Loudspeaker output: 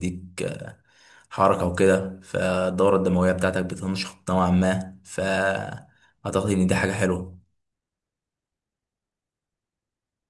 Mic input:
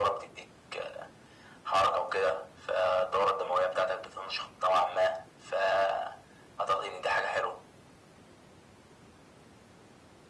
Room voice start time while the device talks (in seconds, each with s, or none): none